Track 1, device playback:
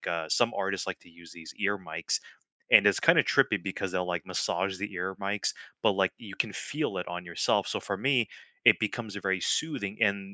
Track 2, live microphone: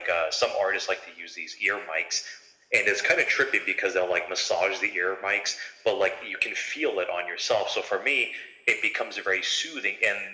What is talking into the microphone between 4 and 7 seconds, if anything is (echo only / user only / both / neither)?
echo only